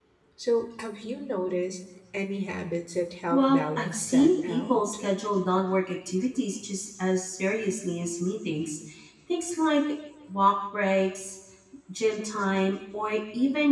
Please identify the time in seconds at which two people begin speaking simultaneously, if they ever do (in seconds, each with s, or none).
3.3 s